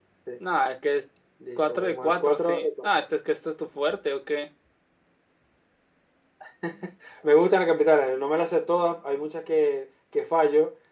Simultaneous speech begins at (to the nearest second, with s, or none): 2 s